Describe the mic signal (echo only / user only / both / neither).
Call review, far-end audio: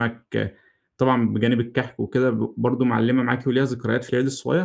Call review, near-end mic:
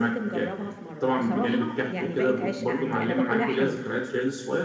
both